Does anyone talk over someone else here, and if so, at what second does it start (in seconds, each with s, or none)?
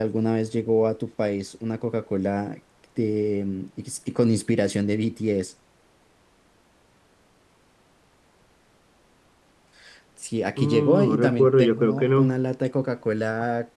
10.6 s